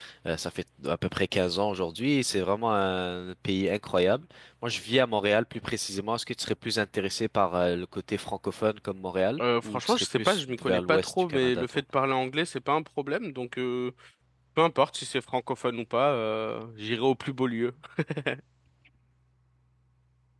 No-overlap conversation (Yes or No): No